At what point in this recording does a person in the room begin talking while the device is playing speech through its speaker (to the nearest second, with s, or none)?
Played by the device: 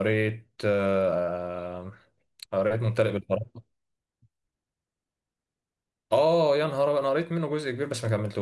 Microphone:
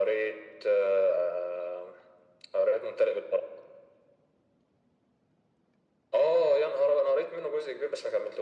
none